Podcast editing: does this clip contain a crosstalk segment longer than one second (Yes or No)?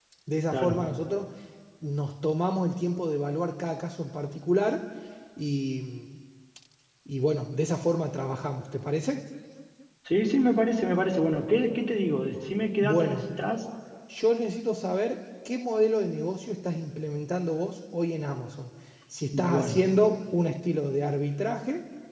No